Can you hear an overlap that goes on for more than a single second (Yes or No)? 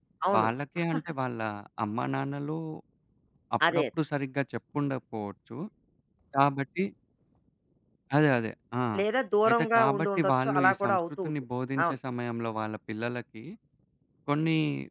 Yes